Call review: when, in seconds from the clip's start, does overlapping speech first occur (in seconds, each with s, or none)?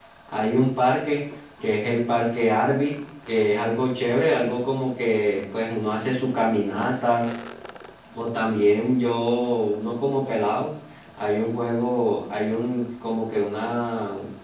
none